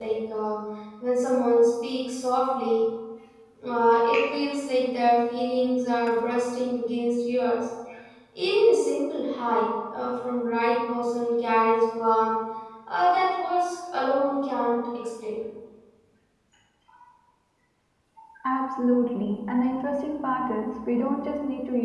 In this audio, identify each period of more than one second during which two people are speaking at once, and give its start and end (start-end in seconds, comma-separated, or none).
none